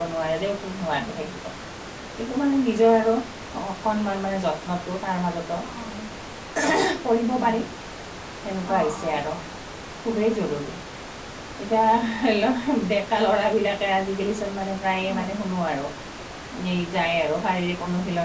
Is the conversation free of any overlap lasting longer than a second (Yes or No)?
Yes